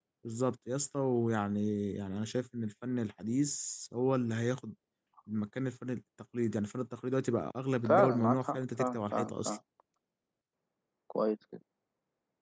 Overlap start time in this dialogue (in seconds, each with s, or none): 7.8 s